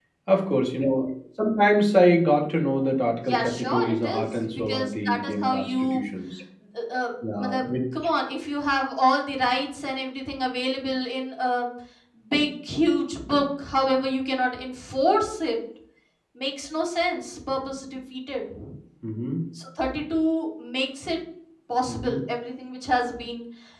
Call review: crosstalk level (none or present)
present